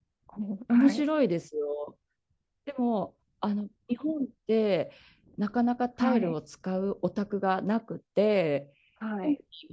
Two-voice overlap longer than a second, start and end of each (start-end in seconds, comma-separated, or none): none